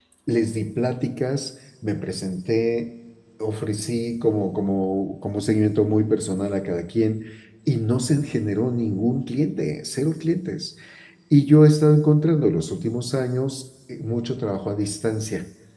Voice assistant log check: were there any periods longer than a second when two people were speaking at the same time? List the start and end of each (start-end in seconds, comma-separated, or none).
none